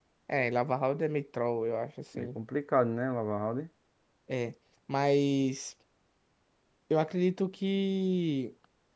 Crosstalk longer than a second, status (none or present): none